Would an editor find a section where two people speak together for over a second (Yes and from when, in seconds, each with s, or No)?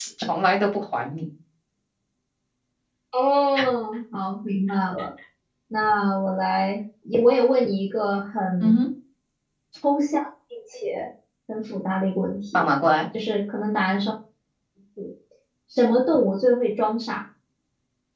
No